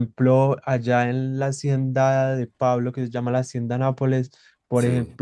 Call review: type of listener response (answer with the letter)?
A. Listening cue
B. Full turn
A